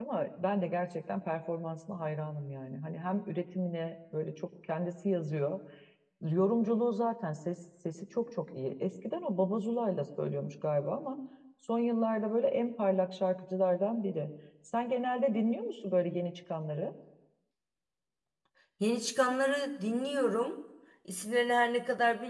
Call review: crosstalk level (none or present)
none